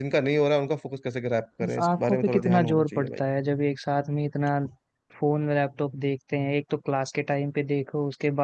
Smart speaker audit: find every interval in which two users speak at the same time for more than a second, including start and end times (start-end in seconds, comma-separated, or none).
1.6-3.2